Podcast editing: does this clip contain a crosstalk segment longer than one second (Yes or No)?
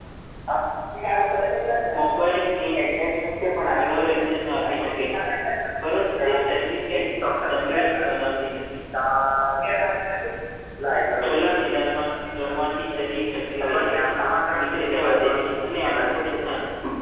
Yes